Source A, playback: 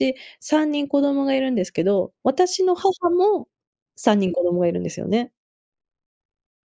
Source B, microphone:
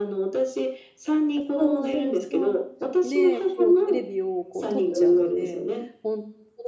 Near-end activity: present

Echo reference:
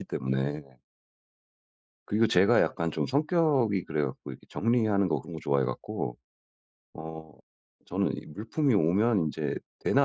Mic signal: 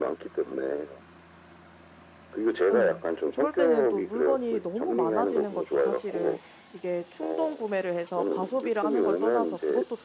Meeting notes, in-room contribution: present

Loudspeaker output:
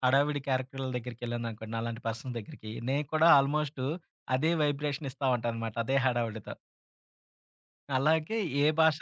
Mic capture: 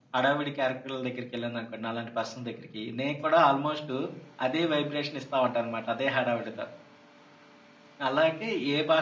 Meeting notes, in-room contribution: none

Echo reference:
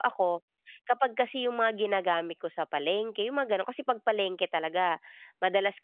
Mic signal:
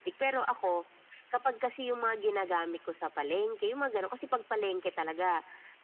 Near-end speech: none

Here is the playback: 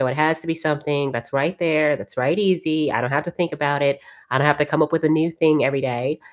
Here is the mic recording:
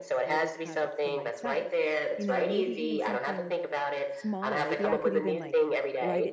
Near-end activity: present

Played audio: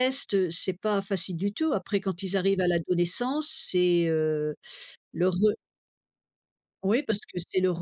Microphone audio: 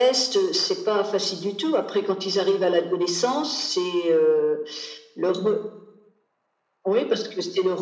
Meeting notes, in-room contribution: none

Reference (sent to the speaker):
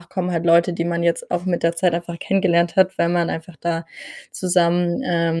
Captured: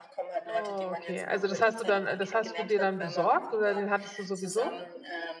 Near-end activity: present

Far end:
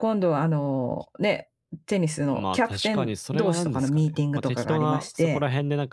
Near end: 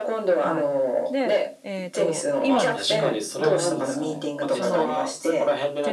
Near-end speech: present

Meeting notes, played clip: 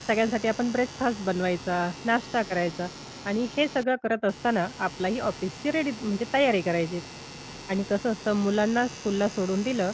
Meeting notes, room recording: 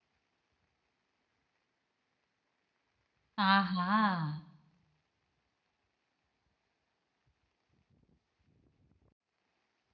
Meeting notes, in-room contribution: present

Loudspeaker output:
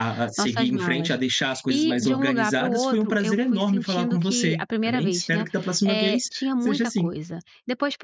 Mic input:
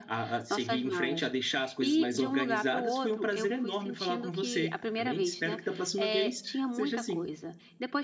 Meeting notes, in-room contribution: none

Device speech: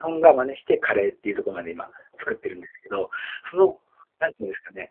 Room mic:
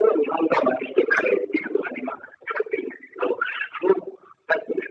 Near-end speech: none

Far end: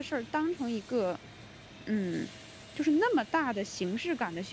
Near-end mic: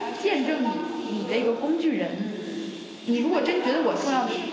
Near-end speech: present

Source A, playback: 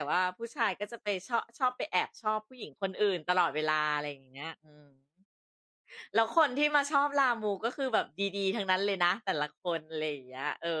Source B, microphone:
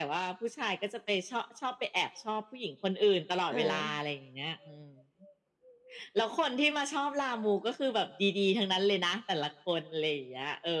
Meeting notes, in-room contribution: present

